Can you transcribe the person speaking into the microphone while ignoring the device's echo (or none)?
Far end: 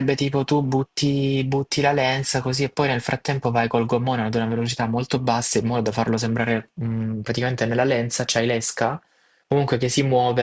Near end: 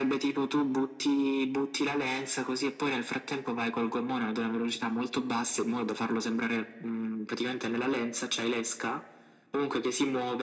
none